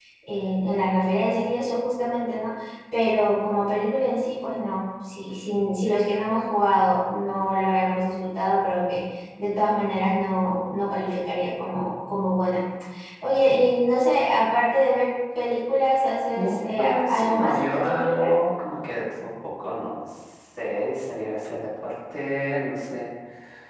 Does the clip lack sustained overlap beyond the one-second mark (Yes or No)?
No